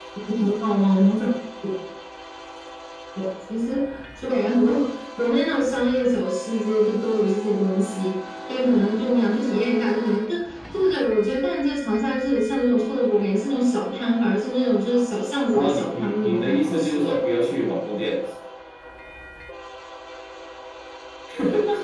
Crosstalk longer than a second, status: present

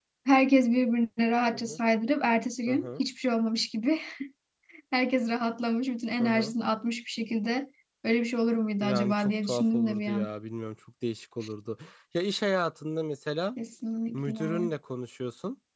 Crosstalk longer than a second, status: present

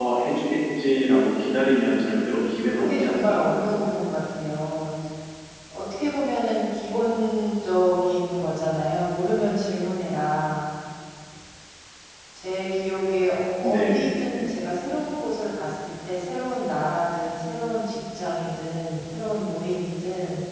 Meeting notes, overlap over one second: present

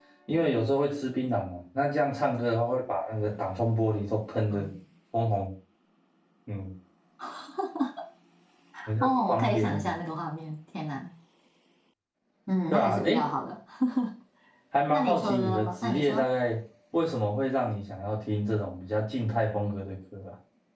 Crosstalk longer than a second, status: present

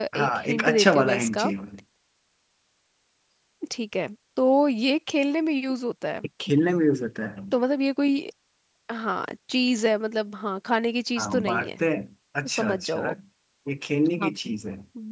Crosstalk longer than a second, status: present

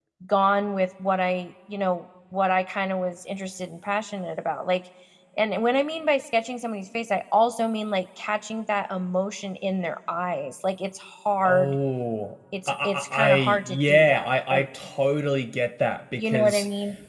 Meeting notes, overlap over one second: present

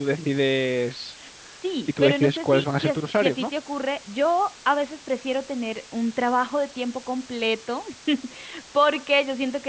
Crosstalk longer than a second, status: present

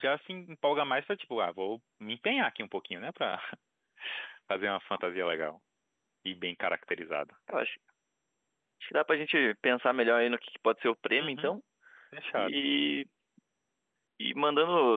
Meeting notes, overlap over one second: none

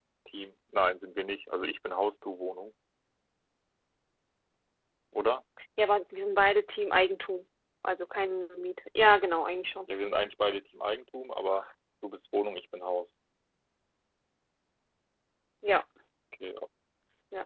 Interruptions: none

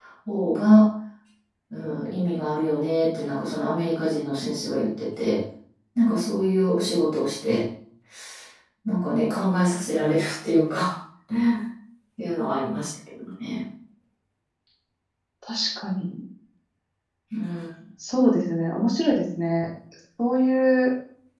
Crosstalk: none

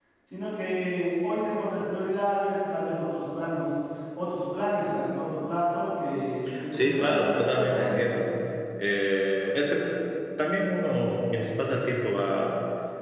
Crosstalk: present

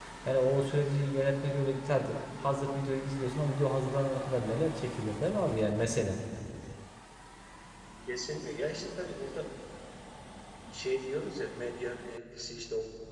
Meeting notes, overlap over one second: none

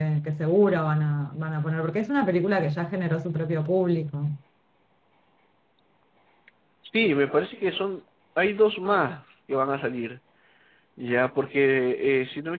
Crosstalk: none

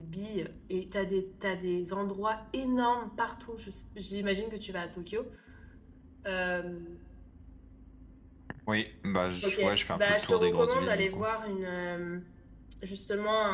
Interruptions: present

